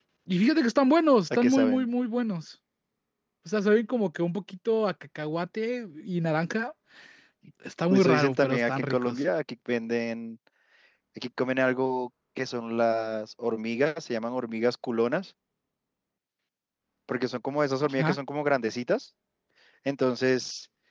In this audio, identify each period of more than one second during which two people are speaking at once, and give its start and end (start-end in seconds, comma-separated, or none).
7.9-9.2